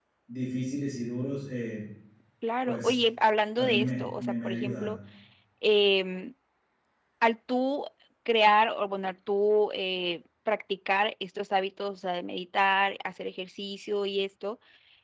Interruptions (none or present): present